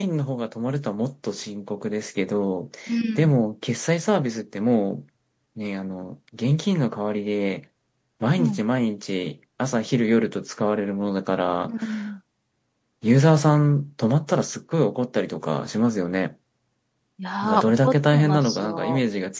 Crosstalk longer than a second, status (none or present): present